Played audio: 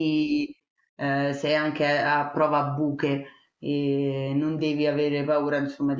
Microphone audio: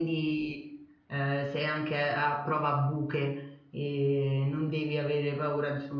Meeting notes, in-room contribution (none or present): none